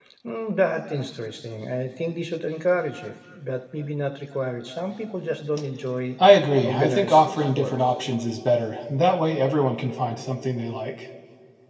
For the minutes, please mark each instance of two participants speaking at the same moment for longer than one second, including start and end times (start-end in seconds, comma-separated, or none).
6.6-7.9